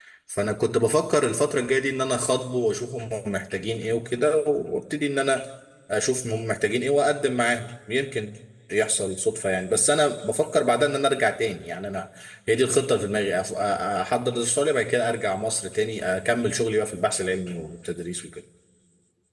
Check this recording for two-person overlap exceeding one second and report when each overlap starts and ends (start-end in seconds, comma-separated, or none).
none